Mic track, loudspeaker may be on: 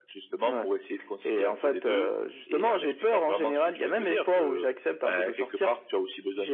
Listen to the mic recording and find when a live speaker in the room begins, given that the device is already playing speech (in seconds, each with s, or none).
none